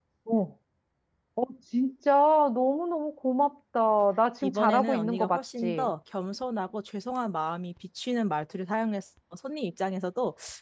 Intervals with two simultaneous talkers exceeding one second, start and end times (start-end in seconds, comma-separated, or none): 4.4-5.9